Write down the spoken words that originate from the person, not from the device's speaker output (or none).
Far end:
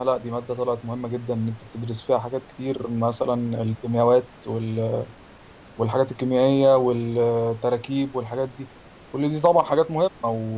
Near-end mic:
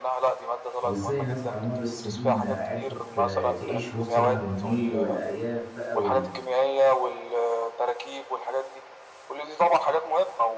وازاي الناس على مر السنين عرفت آه، تعيش وسط نهر النيل والارياف بقى وال-